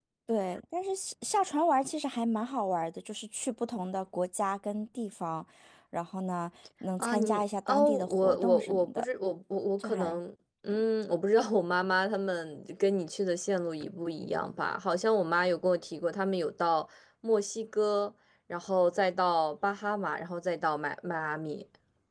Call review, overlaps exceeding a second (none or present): present